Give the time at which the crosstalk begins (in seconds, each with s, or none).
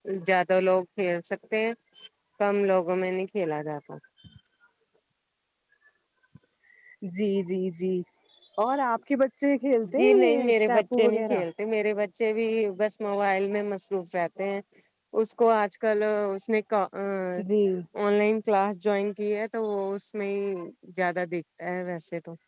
9.8 s